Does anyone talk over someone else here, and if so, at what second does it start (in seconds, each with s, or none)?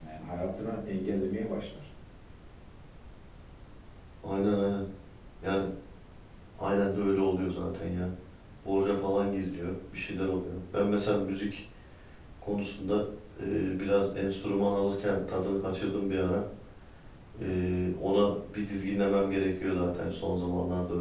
none